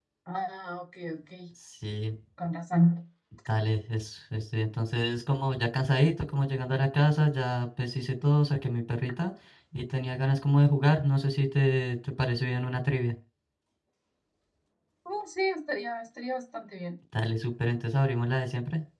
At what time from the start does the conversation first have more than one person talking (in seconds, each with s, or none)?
none